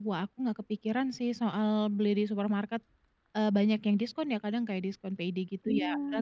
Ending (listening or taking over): listening